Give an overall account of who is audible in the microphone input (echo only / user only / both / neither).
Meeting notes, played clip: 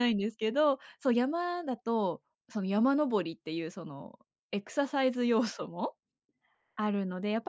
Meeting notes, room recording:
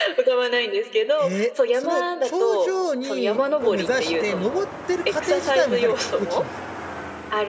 both